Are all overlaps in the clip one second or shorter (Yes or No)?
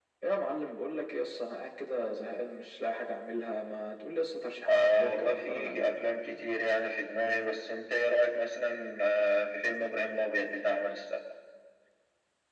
No